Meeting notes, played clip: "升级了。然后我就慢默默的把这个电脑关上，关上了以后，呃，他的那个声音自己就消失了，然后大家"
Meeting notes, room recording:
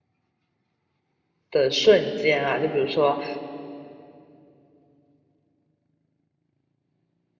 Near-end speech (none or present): present